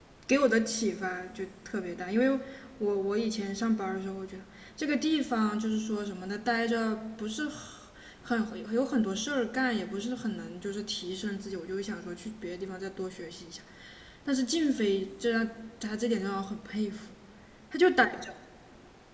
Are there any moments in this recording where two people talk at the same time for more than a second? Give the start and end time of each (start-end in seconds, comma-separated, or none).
none